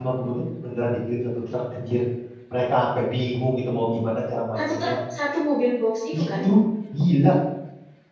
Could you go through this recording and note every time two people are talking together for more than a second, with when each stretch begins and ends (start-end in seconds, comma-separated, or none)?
none